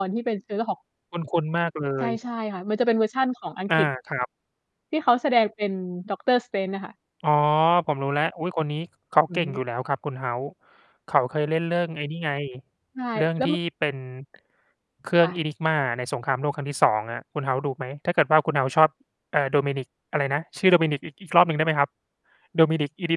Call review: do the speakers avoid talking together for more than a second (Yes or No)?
Yes